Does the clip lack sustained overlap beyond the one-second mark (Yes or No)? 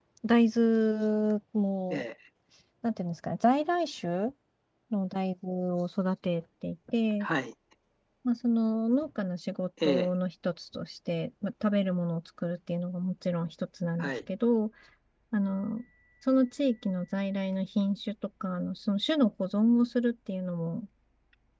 Yes